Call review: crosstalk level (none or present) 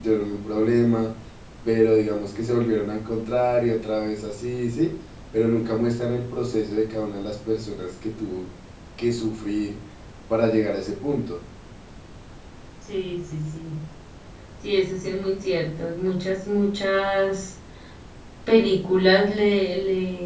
none